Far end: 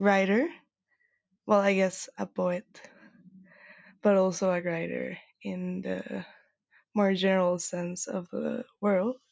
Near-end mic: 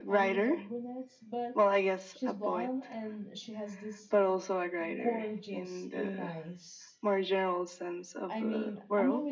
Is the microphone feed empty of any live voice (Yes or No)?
No